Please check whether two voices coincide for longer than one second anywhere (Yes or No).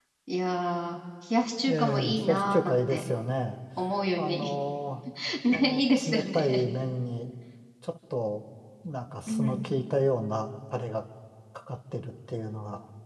Yes